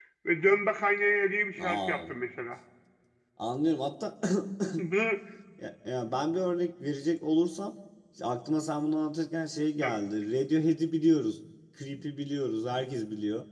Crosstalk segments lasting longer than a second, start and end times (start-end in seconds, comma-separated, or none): none